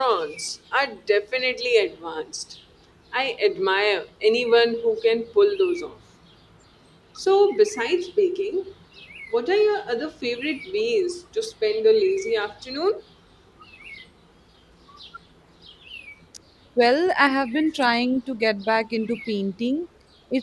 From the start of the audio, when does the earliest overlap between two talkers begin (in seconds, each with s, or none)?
none